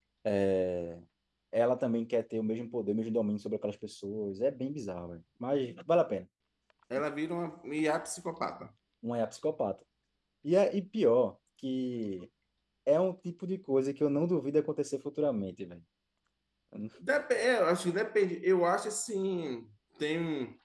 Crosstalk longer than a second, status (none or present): none